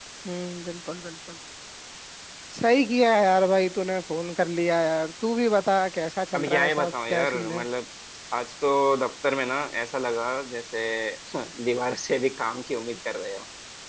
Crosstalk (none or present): present